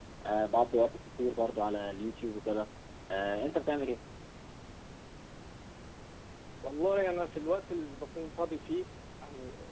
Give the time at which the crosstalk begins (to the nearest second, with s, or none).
none